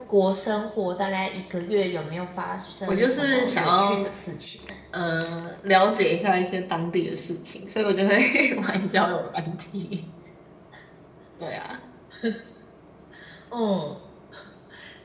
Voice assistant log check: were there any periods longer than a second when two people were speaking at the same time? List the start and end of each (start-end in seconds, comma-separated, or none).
2.9-4.1